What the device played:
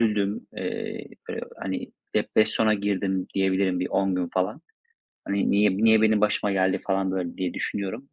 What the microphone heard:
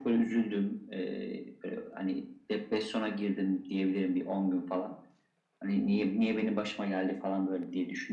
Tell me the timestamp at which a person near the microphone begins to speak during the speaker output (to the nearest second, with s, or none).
none